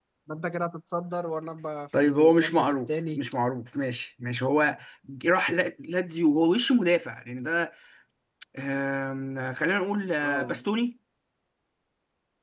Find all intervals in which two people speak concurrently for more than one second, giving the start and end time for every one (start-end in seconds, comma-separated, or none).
2.0-3.2